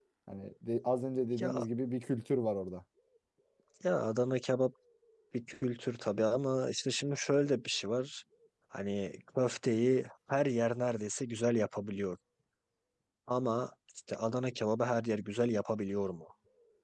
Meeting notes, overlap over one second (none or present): none